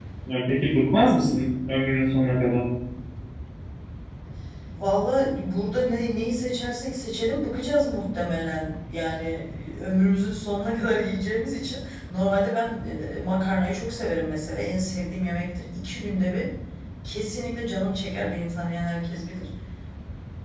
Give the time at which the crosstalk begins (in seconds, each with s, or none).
none